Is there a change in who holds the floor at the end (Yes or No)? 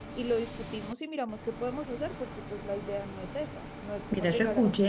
Yes